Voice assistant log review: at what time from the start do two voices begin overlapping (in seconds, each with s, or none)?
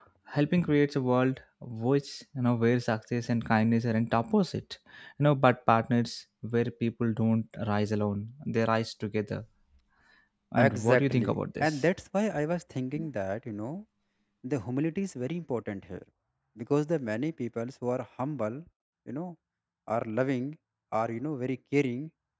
10.6 s